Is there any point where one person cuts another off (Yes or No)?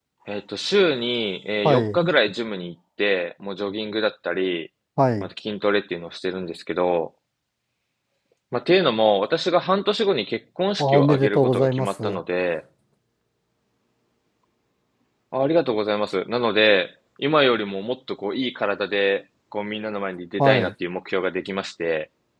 Yes